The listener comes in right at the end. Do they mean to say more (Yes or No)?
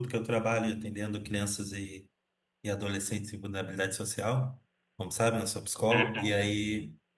No